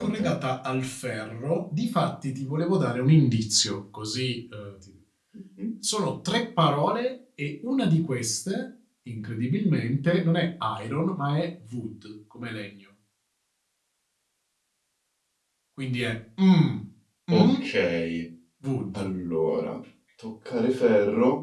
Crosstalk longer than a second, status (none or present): none